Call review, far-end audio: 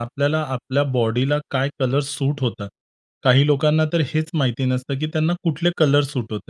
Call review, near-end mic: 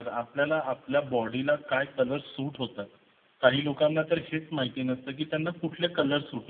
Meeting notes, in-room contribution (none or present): none